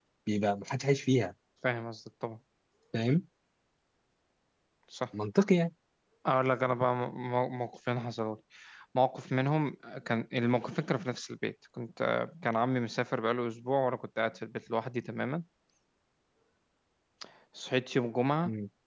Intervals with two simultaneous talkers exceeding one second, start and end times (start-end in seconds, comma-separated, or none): none